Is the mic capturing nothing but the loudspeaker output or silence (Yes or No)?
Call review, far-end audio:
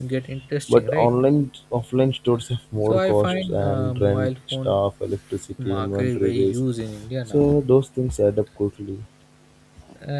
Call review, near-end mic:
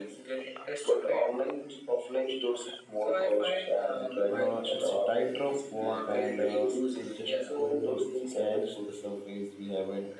No